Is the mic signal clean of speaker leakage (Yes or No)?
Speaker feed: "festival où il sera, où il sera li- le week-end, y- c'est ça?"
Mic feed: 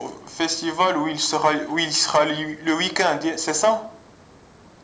No